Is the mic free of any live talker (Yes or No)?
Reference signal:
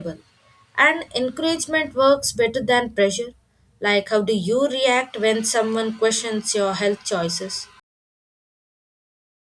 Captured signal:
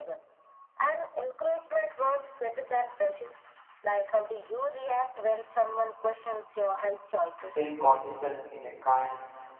No